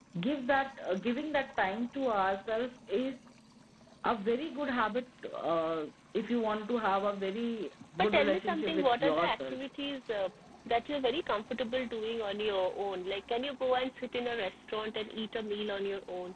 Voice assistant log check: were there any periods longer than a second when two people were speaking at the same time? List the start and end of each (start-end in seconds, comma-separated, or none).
8.0-9.6